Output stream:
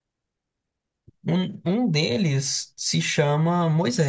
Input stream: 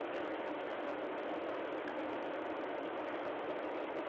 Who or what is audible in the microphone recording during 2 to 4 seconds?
neither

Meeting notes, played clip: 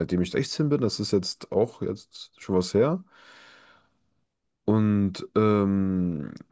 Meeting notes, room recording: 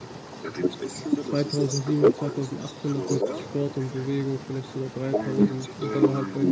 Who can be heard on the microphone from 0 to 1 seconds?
echo only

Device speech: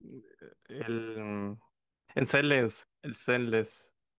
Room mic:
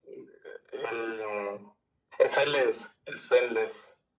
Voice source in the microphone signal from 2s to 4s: echo only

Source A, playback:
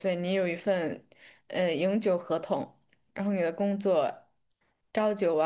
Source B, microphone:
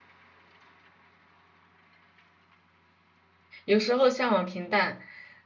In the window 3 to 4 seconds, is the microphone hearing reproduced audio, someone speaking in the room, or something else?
user only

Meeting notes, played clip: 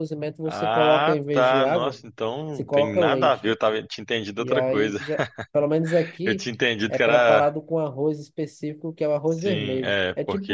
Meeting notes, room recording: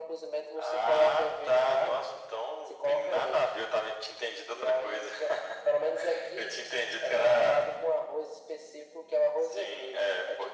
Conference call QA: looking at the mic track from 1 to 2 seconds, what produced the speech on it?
echo only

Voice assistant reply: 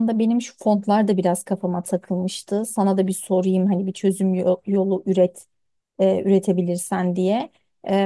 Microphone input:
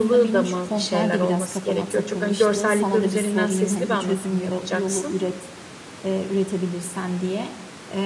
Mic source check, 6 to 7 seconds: echo only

